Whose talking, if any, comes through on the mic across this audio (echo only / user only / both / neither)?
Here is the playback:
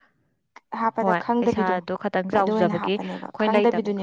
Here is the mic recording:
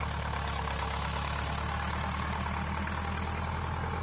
neither